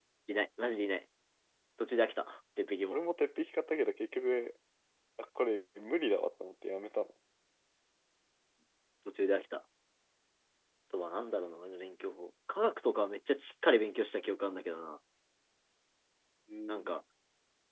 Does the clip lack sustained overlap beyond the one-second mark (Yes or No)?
Yes